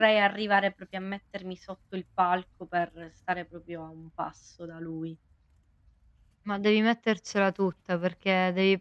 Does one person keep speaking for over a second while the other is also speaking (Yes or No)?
No